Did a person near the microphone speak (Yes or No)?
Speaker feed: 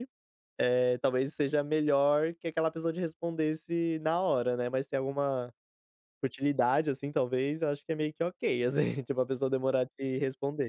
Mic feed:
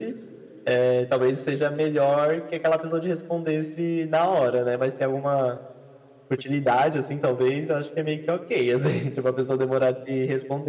No